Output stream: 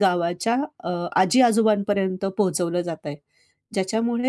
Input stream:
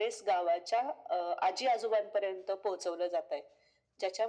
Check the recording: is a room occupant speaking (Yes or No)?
No